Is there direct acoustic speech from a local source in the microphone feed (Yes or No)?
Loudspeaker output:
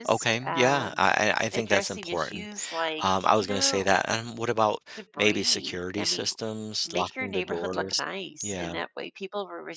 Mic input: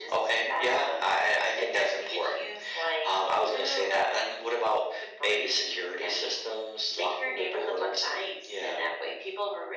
No